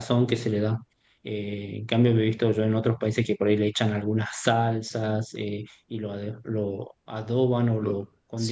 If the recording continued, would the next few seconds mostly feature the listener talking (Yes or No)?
No